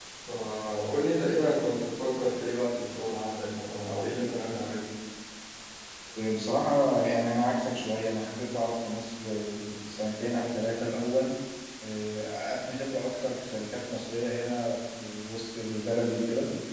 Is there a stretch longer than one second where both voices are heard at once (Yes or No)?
No